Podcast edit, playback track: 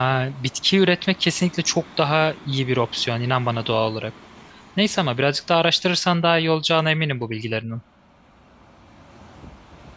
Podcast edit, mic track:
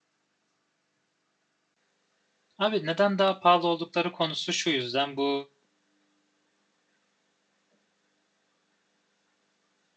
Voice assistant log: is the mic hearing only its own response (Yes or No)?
No